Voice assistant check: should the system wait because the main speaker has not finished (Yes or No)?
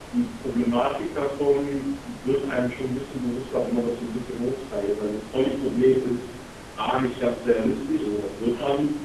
Yes